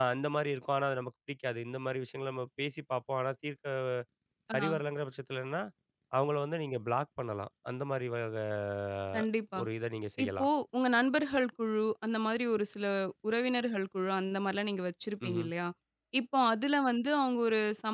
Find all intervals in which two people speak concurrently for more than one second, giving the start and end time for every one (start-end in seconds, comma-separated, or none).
none